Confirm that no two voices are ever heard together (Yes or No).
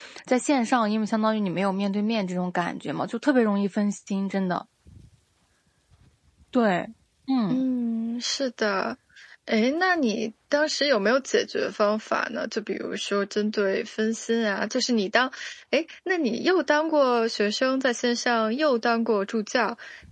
Yes